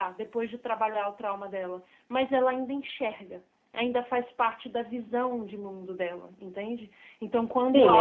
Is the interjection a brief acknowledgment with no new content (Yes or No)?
No